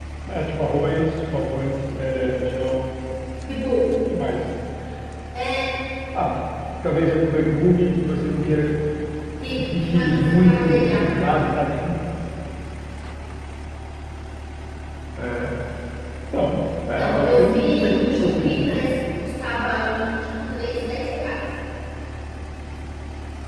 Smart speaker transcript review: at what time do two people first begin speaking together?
9.6 s

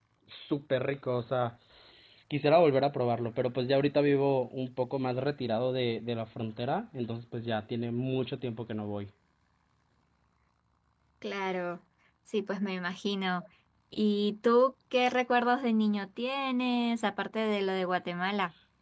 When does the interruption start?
none

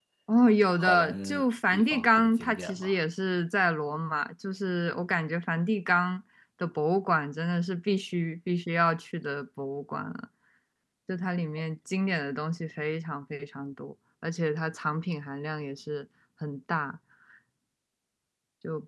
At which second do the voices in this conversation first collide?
0.8 s

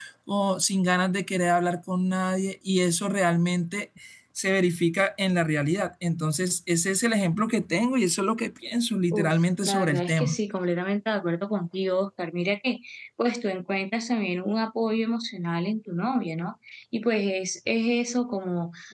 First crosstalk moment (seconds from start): 9.1 s

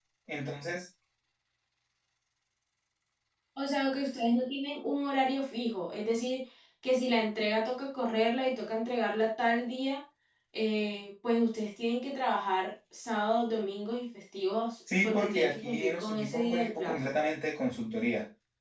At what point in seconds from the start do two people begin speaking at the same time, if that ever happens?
14.9 s

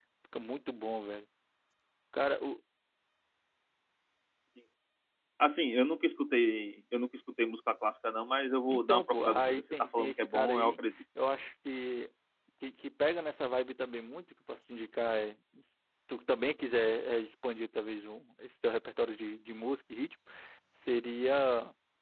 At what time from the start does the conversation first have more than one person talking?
8.7 s

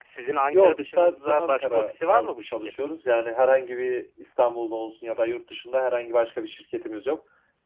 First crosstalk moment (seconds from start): 0.5 s

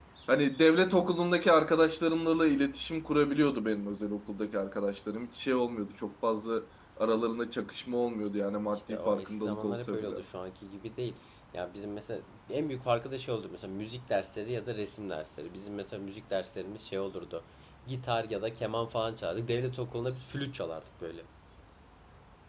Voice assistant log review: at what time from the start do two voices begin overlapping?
8.9 s

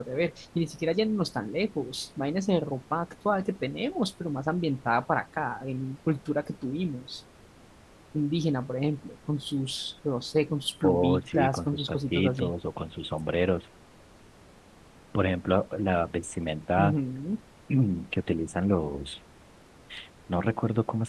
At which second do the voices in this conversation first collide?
10.8 s

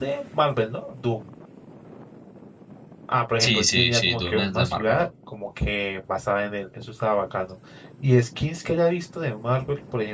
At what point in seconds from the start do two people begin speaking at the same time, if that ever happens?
3.4 s

